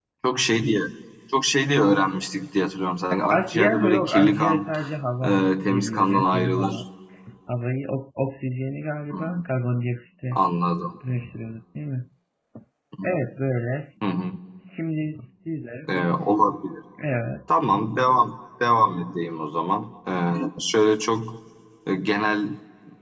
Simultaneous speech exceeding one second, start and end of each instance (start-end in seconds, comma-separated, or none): 3.3-4.7, 5.2-6.8